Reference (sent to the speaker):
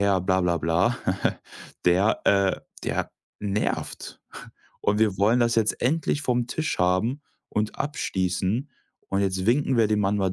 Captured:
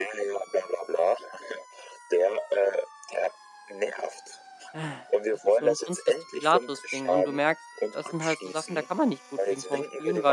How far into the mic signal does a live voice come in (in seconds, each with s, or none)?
4.7 s